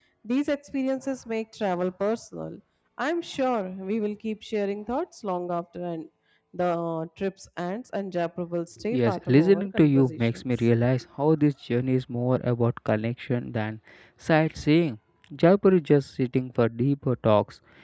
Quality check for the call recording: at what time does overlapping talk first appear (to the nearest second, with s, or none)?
9 s